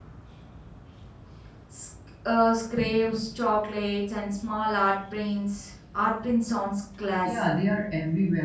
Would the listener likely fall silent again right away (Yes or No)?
No